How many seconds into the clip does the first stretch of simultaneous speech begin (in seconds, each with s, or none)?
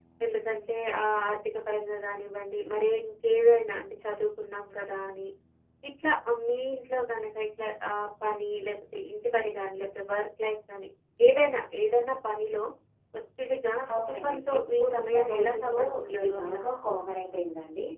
14.0 s